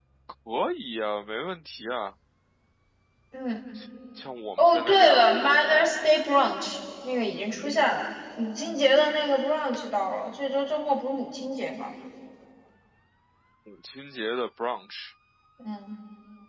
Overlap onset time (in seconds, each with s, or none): 4.6 s